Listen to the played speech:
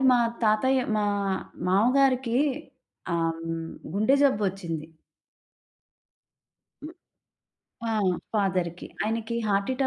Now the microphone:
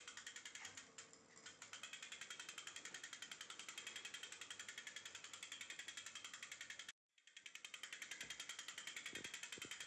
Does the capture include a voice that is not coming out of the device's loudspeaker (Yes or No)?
No